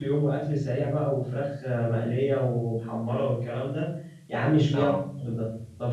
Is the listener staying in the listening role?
Yes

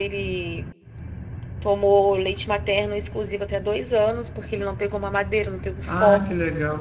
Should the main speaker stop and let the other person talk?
Yes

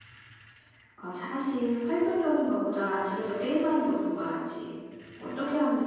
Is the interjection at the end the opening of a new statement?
No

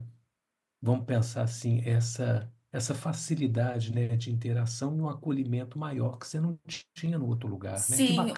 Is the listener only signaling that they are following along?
No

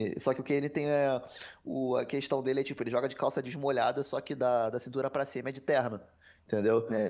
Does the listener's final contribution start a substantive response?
No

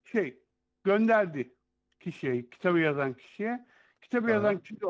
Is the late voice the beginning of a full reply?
No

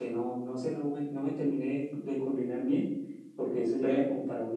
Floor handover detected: No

